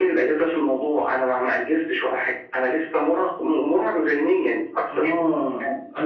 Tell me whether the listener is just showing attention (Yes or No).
No